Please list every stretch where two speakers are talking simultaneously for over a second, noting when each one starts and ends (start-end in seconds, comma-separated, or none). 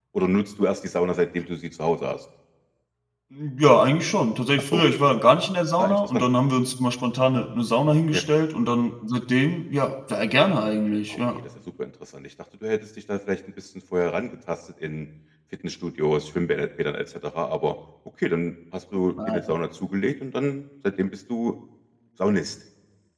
none